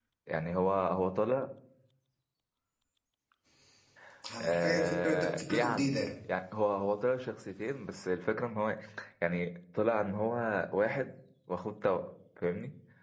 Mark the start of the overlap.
4.6 s

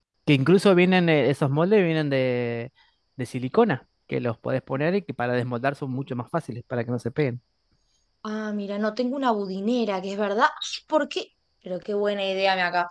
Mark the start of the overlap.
none

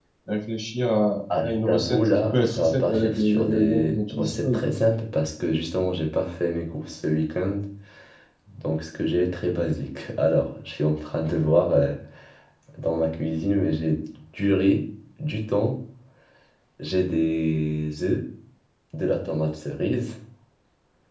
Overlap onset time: 1.3 s

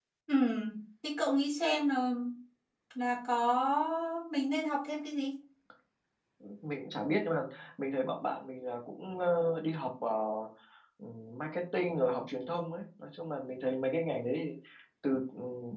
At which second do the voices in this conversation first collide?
none

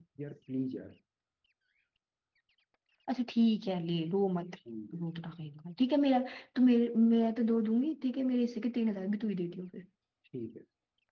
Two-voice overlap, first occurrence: none

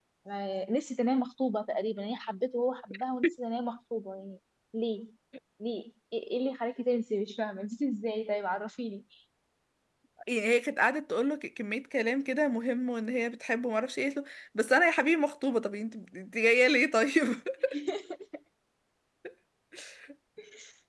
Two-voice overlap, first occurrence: none

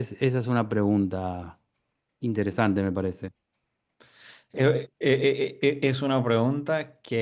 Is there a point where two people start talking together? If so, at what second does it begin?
none

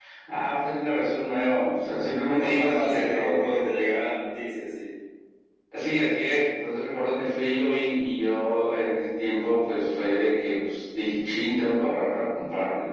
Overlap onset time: 2.1 s

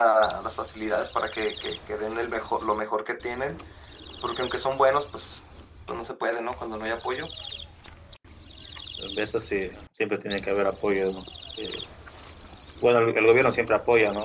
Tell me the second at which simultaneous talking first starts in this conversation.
none

